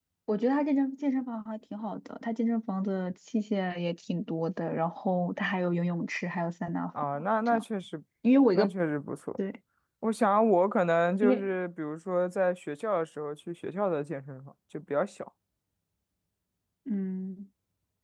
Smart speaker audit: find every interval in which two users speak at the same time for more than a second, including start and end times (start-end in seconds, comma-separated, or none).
none